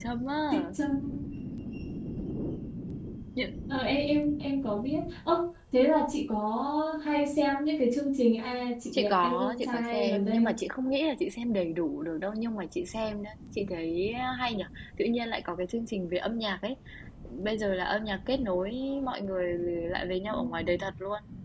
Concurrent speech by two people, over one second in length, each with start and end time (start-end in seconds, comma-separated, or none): 8.9-10.6